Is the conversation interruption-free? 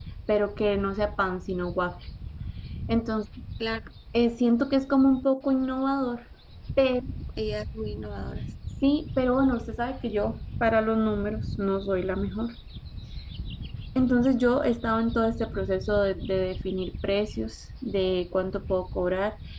Yes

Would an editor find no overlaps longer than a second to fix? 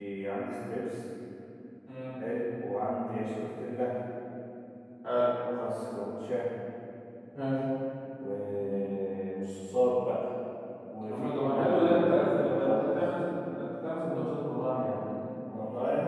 No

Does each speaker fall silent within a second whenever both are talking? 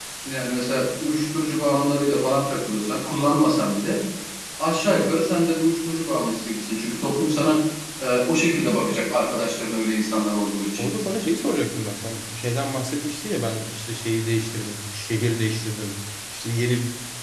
Yes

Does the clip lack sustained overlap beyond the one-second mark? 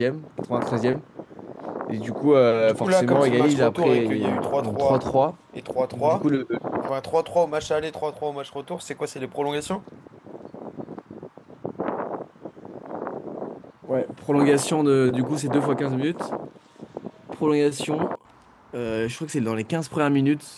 No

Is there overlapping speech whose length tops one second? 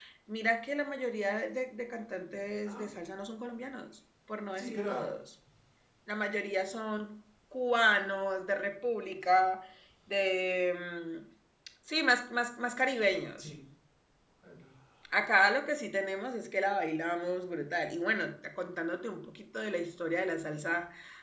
No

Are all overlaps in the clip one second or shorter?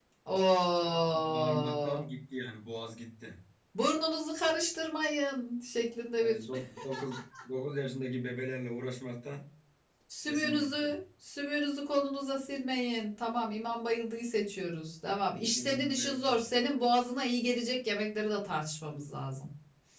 No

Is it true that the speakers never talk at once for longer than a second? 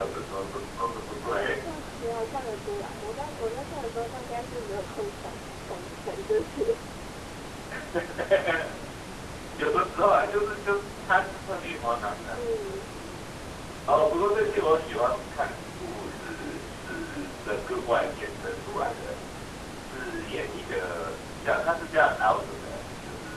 Yes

